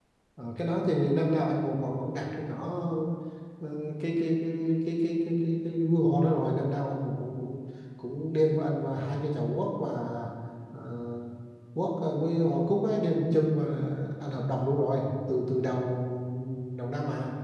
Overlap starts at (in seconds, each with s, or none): none